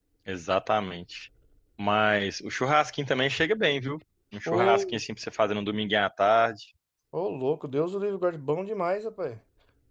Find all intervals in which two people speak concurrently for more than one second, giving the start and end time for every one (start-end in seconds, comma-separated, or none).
none